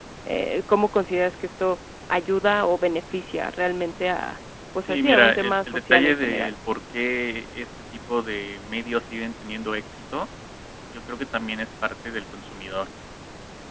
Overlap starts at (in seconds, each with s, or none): 4.8 s